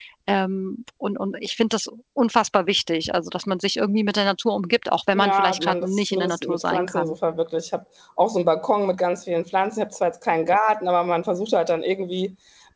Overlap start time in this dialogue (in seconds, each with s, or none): 5.2 s